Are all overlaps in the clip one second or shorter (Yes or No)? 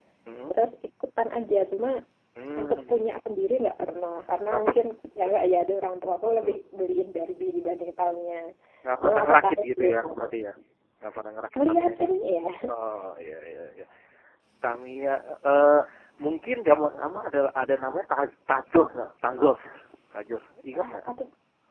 No